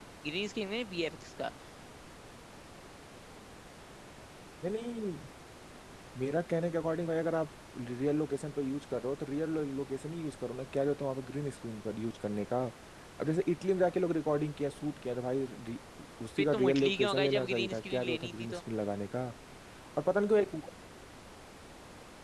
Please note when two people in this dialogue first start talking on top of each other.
16.4 s

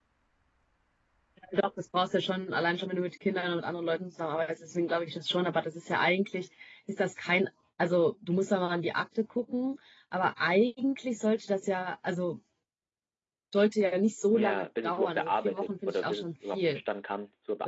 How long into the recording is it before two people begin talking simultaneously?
14.3 s

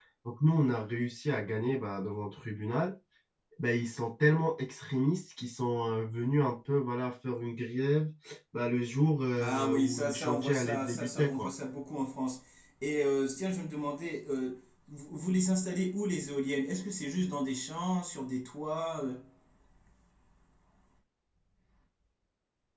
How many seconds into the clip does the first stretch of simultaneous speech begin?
9.4 s

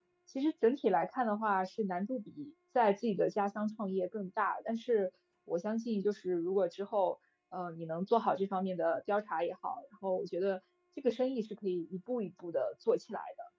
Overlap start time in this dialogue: none

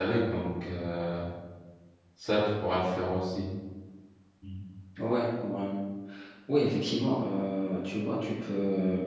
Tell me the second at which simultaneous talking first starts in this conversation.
none

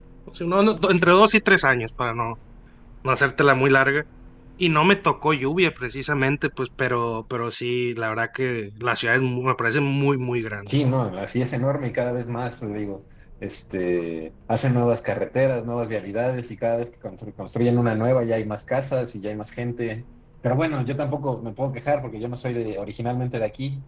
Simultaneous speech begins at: none

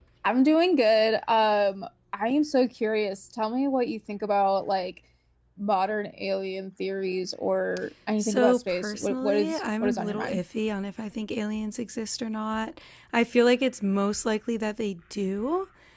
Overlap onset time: 8.2 s

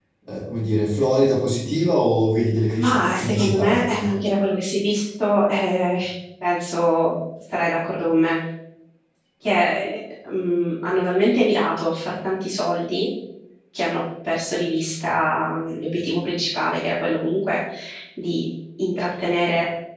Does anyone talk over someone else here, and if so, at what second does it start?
2.8 s

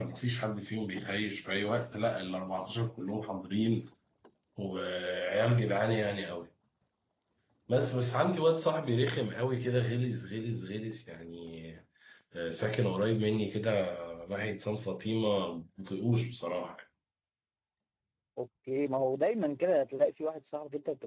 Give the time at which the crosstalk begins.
none

